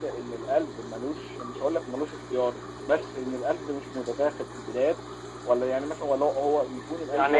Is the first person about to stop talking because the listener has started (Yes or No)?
No